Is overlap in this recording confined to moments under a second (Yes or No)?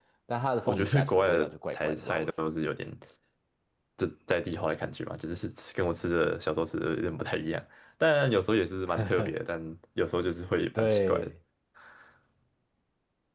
No